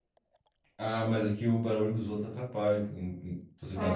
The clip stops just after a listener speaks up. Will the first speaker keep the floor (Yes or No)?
No